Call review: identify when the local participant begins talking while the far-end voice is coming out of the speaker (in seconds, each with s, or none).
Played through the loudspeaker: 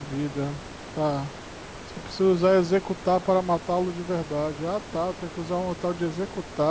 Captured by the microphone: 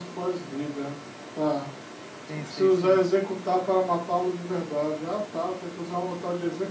2.3 s